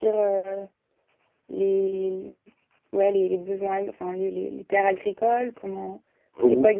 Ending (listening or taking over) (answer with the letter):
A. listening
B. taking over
B